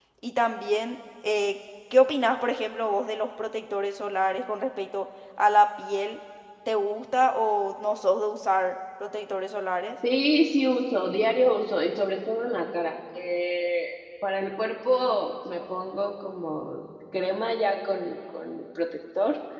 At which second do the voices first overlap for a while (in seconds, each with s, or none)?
none